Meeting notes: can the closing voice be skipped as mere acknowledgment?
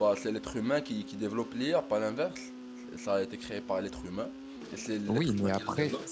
No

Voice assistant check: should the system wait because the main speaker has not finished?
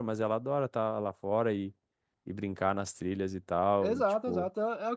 No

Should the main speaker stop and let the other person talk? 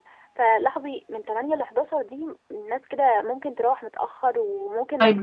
Yes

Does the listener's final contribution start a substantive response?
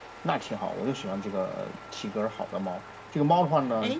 No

